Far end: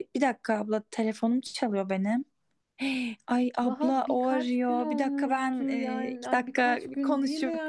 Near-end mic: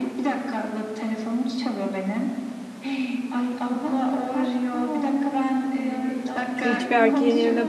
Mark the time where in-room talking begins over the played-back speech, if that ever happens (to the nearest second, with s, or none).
7 s